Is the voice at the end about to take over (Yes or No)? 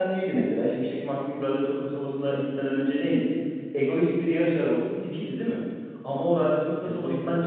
No